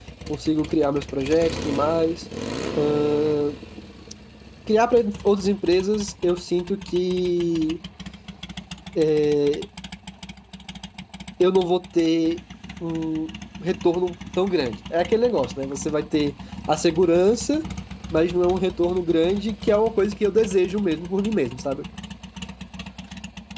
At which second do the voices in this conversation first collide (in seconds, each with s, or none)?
none